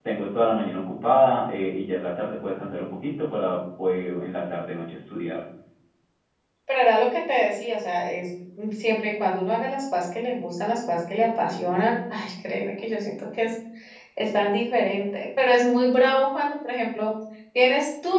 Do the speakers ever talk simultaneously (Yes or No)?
No